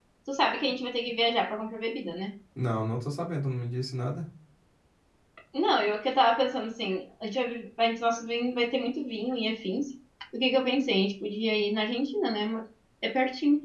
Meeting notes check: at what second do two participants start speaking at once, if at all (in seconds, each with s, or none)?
none